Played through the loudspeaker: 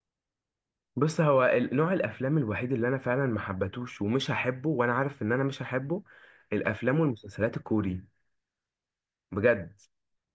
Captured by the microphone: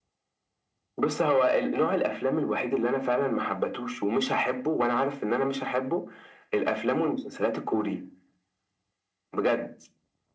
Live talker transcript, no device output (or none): none